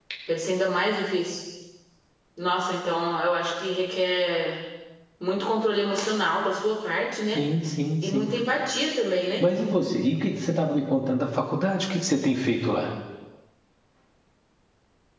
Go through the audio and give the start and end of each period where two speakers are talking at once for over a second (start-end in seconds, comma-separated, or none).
none